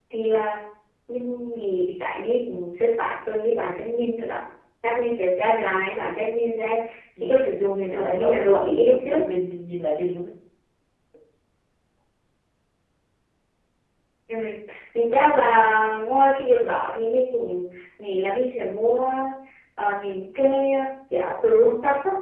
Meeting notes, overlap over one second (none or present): present